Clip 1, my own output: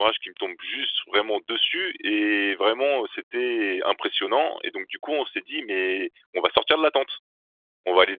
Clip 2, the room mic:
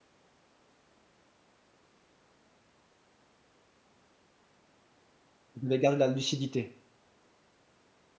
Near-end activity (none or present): present